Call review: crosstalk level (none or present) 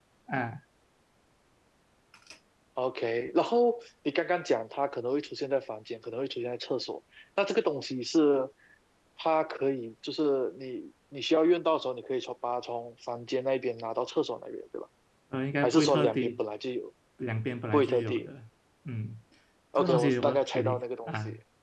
present